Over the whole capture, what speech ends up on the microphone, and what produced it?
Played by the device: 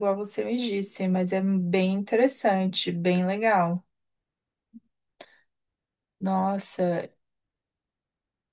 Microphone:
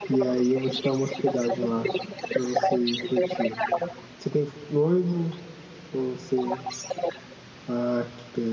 both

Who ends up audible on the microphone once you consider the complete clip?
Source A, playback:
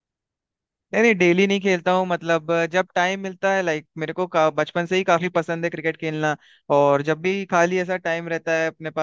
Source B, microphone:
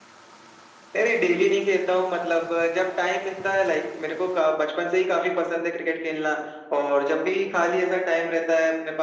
echo only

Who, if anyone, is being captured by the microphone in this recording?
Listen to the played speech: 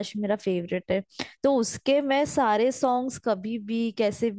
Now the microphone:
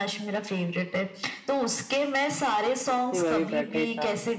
both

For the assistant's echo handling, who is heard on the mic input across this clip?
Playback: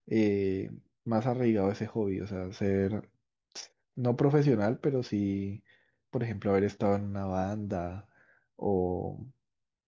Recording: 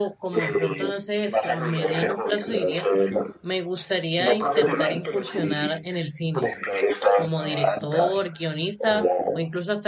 both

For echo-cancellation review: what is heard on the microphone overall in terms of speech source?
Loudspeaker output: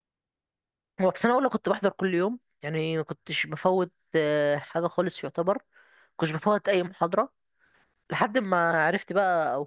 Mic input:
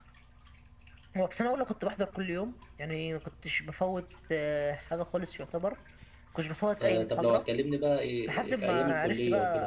both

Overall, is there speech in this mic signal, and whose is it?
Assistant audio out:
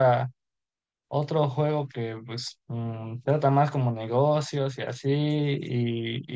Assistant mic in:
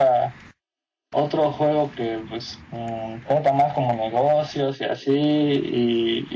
echo only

